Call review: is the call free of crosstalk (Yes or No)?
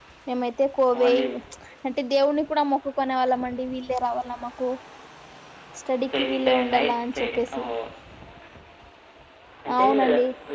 No